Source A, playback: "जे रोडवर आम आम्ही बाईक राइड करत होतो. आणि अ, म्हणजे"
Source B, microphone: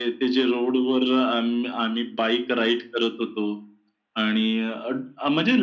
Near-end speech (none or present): none